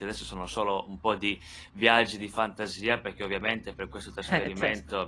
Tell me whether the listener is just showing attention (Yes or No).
Yes